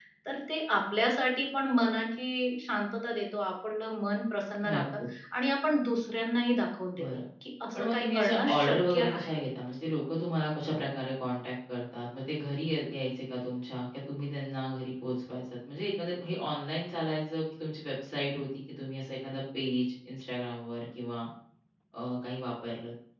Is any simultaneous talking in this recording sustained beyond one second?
Yes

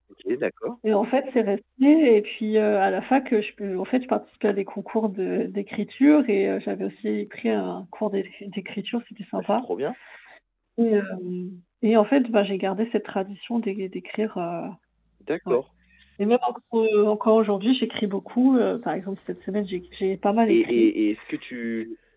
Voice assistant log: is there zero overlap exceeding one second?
Yes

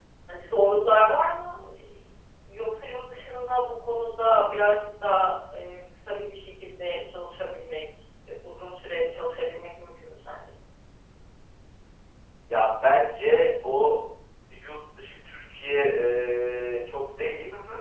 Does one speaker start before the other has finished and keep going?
No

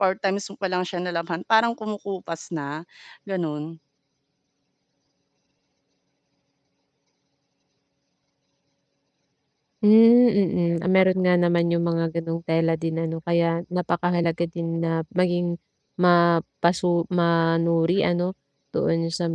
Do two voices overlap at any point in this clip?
No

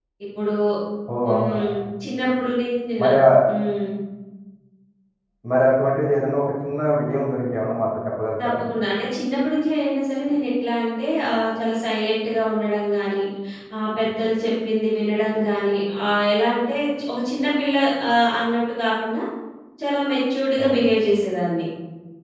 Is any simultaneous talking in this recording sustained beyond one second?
No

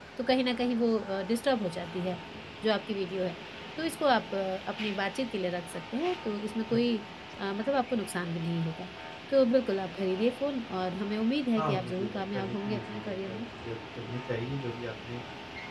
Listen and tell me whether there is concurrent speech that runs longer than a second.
Yes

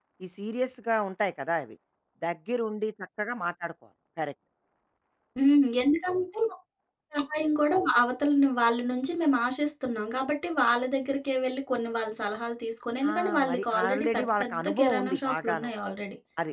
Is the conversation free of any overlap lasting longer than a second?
No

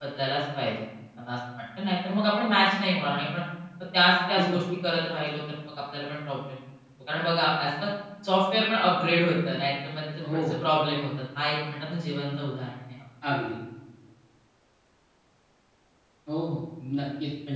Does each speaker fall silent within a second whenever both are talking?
Yes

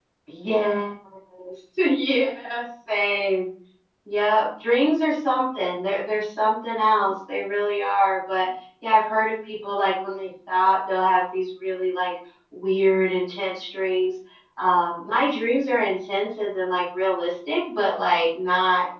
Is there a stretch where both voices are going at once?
No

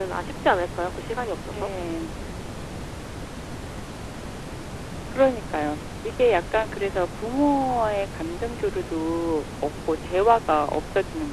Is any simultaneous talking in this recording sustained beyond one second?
No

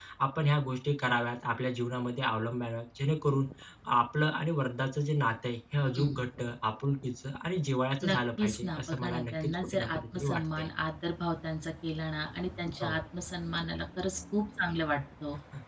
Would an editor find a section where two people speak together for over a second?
Yes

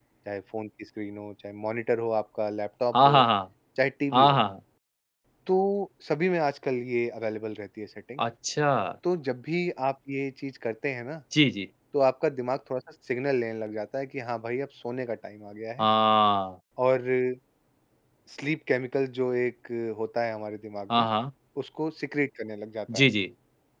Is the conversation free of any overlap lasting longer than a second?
Yes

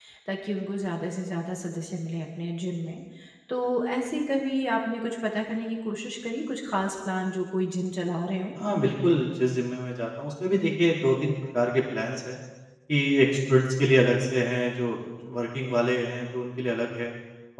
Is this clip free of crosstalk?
Yes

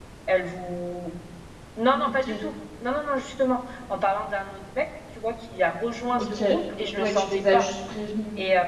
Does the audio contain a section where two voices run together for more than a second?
Yes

